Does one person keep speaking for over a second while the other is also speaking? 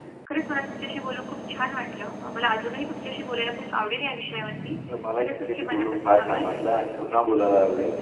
Yes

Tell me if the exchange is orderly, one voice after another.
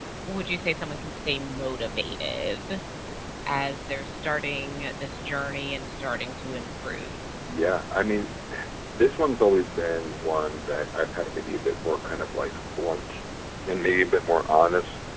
Yes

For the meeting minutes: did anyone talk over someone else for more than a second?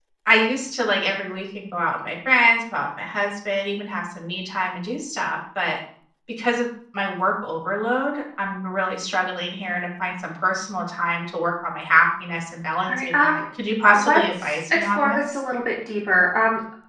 Yes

